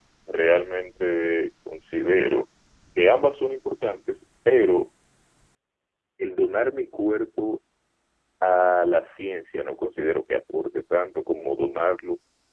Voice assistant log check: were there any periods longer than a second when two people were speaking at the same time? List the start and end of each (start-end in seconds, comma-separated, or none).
none